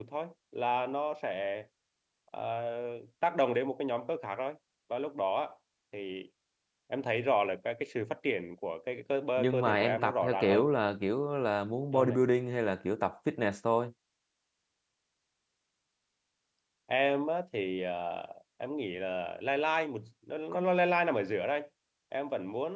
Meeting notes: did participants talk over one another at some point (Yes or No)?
Yes